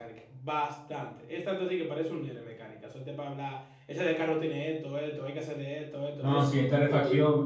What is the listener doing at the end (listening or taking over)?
taking over